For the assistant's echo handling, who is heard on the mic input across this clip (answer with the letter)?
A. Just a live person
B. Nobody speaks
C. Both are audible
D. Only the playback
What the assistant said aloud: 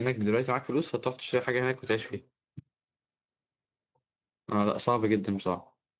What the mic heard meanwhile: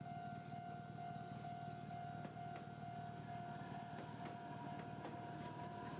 B